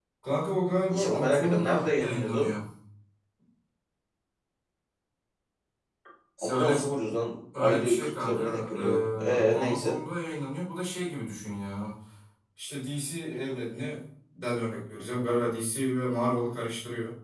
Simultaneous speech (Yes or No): Yes